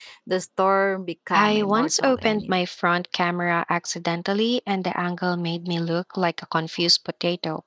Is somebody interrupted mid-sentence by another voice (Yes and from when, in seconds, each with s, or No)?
Yes, from 1.3 s